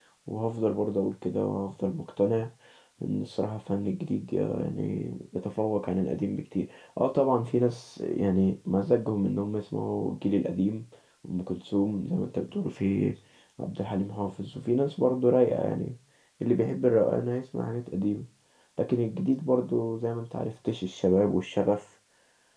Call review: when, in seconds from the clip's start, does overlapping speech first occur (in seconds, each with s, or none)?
none